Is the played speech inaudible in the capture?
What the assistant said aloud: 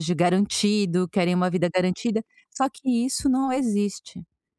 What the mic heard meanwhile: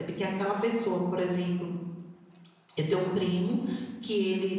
Yes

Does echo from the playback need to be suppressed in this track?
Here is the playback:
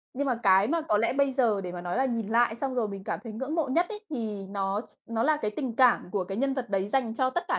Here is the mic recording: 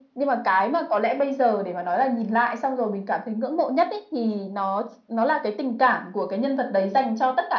Yes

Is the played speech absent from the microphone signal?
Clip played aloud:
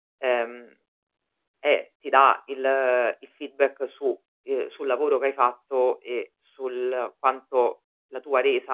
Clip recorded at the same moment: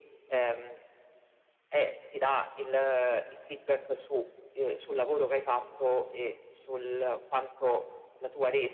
No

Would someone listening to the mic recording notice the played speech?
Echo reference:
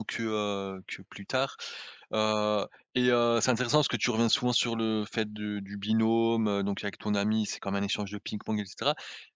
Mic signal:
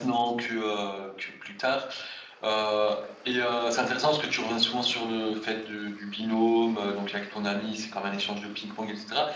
Yes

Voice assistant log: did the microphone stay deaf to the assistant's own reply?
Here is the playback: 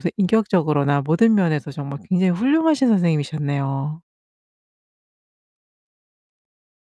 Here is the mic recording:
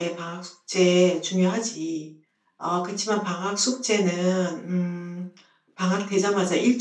Yes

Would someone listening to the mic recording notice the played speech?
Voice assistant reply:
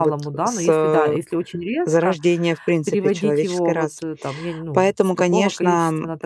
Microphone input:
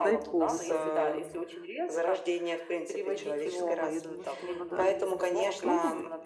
Yes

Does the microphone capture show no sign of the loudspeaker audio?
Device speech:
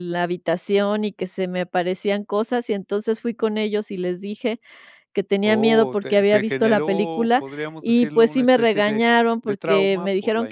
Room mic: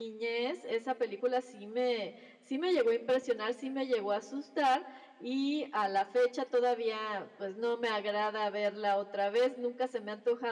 Yes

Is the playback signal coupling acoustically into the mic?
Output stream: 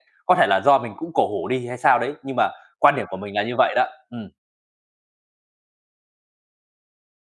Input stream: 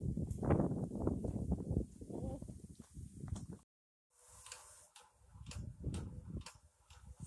No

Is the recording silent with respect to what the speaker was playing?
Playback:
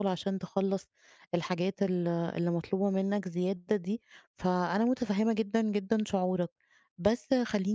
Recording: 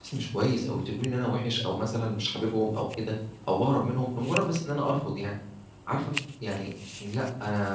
Yes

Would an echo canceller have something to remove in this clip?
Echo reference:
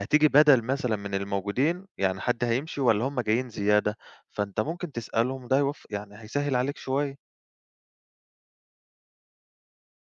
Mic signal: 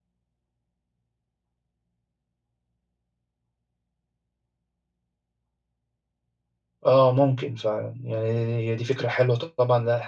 No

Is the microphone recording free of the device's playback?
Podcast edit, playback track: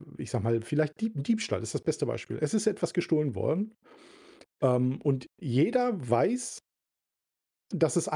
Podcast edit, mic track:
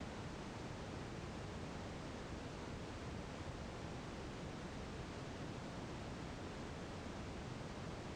Yes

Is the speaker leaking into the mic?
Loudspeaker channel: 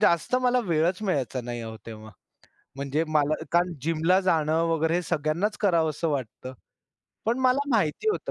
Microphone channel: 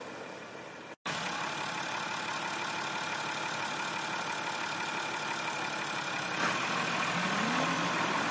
No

